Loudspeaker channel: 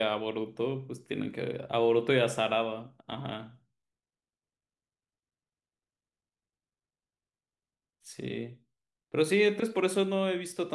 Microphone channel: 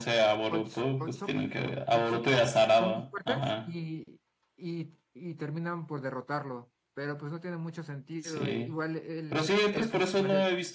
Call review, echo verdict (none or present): present